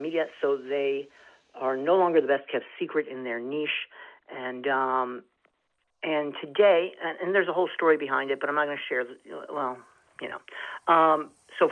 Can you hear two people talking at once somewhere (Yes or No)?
No